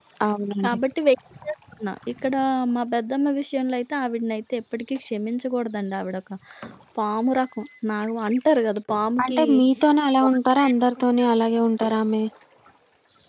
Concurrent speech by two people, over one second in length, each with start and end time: none

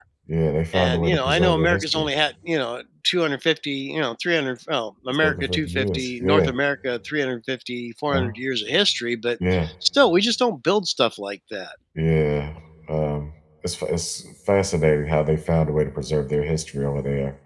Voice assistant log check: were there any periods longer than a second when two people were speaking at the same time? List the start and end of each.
0.7-2.1, 5.2-6.5

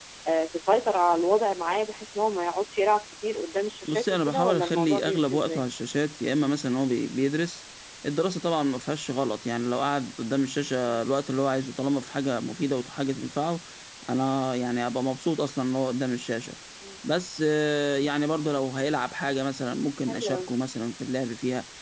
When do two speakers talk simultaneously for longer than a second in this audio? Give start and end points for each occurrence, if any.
3.8-5.6

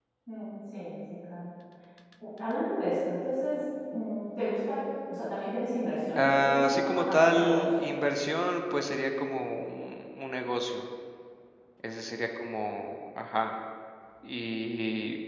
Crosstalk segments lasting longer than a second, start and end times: 6.2-7.7

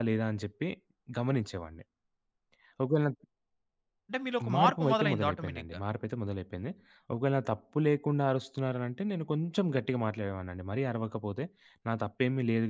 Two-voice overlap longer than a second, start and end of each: 4.5-5.8

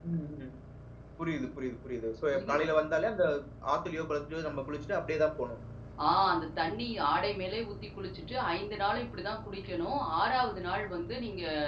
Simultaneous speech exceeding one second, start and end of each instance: none

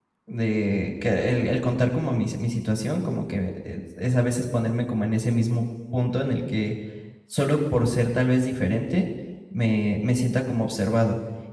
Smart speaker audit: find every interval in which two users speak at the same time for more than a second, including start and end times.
none

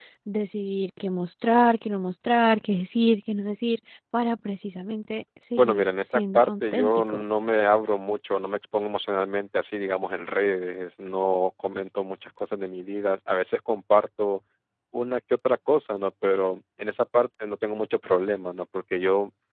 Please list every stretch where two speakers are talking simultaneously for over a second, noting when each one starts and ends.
5.6-7.2

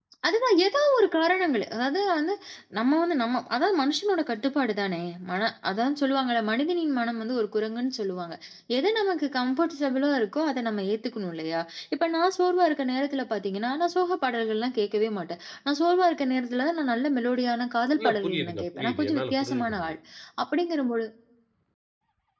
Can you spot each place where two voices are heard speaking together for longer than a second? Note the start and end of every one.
18.0-19.9

